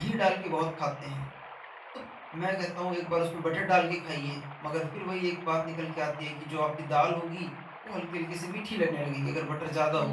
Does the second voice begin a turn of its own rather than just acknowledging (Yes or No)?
Yes